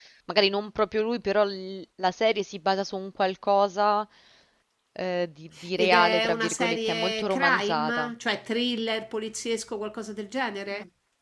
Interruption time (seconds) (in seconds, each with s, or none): 5.8 s